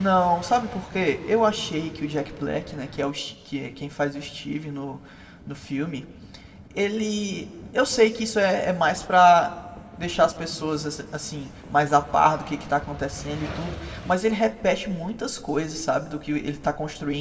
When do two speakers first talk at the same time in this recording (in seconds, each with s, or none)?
none